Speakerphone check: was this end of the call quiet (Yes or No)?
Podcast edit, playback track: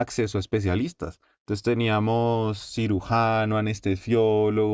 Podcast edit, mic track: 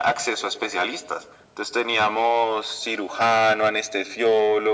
Yes